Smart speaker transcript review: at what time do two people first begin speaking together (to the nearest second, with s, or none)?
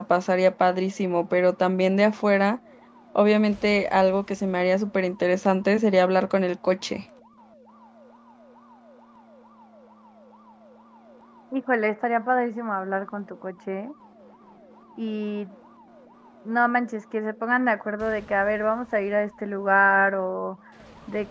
none